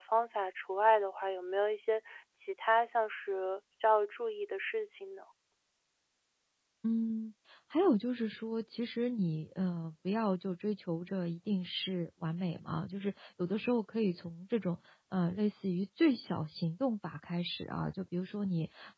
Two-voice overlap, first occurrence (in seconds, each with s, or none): none